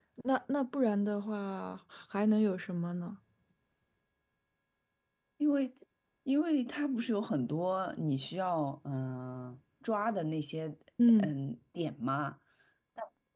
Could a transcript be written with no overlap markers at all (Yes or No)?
Yes